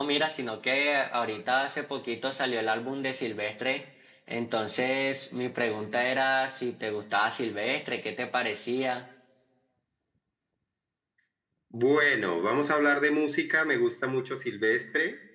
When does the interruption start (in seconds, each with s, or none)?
none